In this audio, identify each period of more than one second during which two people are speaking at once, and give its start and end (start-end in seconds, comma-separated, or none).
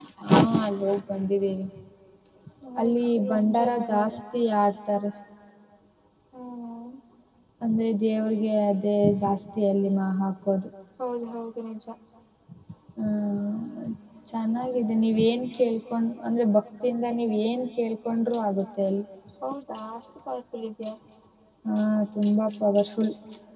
2.8-4.2